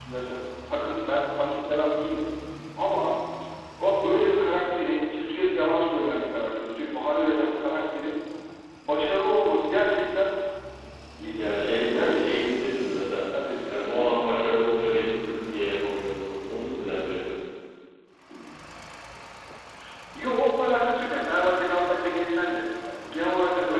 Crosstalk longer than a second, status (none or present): present